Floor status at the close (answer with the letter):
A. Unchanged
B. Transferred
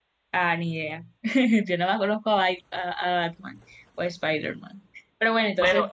B